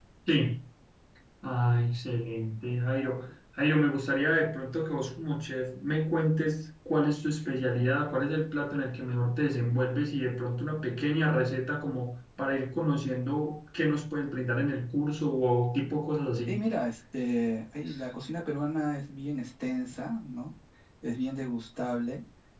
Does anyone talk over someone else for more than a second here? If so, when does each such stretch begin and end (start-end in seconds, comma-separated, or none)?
none